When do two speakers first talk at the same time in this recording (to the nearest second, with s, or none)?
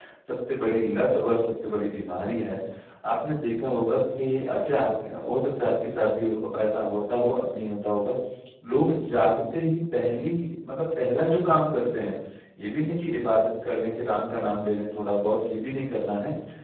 none